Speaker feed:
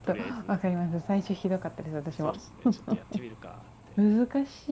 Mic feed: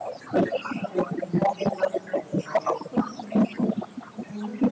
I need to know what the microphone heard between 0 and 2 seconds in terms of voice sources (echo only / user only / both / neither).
echo only